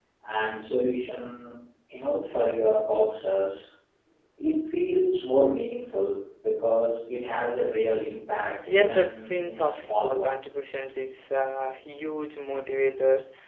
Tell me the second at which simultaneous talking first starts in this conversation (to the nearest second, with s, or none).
9 s